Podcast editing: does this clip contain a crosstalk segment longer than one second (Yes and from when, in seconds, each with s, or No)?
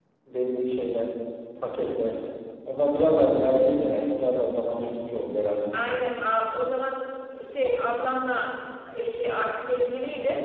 No